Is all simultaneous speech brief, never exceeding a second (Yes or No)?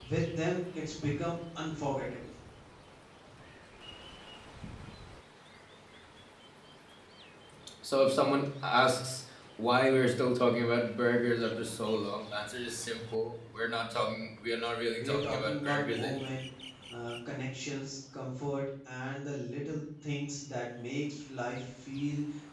No